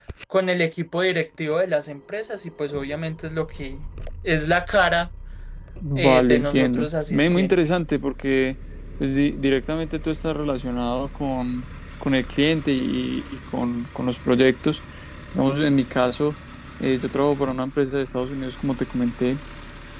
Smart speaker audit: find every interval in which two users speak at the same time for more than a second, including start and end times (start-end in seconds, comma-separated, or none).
6.0-7.5